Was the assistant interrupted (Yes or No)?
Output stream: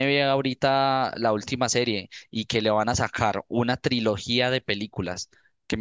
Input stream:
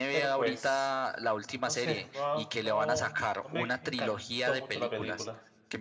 Yes